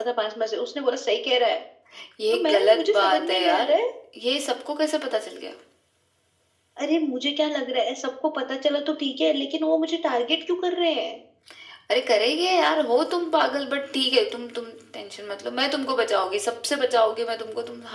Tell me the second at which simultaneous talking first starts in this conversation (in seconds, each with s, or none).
2.3 s